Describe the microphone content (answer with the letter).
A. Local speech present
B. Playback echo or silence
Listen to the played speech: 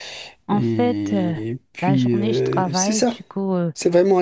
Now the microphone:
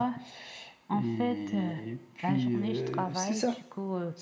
B